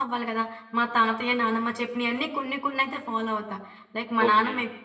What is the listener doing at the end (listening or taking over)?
taking over